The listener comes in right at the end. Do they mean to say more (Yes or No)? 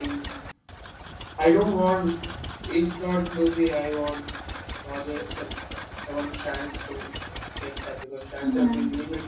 No